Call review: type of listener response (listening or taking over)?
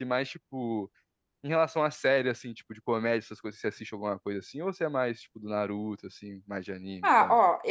taking over